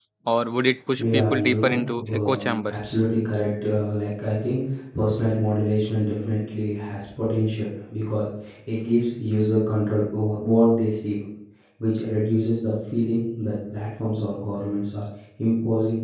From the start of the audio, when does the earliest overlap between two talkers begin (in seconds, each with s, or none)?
1.0 s